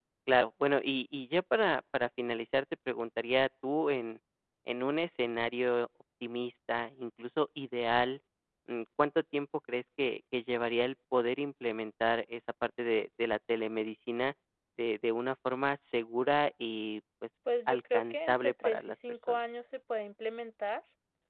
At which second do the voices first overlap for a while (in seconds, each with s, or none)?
17.5 s